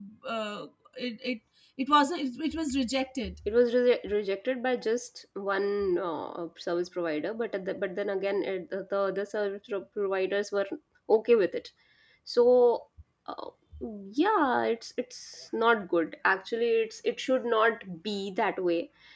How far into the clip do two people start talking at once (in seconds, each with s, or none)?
none